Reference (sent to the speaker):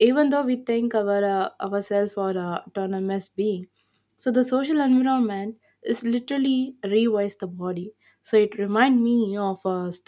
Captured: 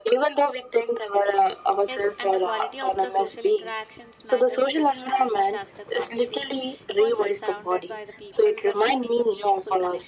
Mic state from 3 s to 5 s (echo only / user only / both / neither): both